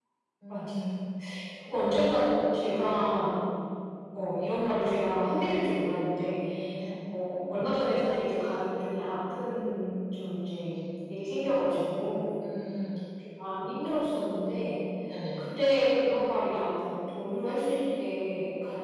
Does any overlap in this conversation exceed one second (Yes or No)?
No